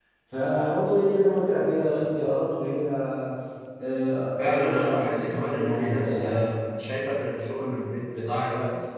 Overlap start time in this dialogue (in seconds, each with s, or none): 4.4 s